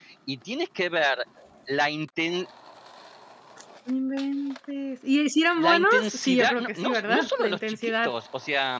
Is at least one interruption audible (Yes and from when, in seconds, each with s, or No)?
Yes, from 5.6 s